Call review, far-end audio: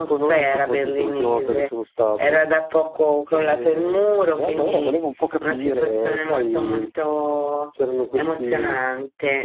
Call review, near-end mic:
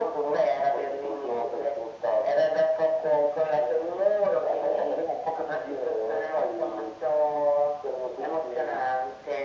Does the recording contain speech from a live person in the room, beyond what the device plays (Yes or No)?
No